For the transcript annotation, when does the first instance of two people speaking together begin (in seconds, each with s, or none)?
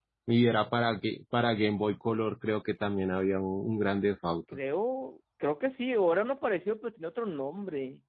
none